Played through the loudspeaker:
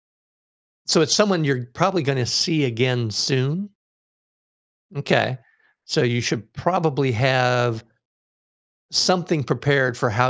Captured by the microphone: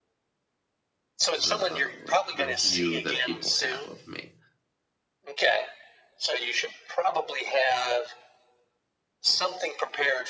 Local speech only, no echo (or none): the like the view that people have of me.